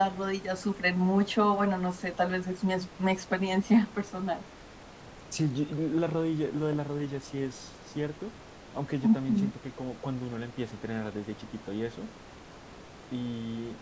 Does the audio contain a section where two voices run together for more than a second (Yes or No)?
No